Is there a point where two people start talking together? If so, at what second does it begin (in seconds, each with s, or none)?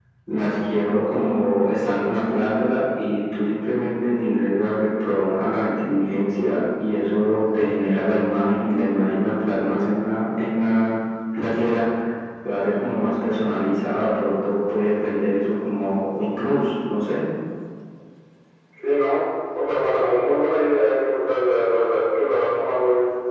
none